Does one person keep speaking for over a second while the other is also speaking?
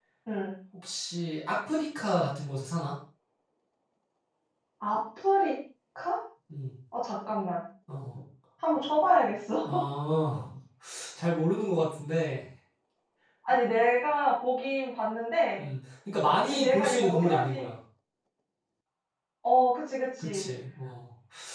Yes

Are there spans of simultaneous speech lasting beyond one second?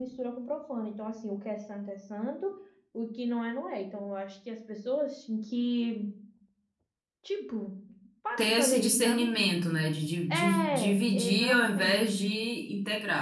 Yes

